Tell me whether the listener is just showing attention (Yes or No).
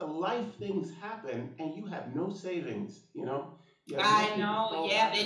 No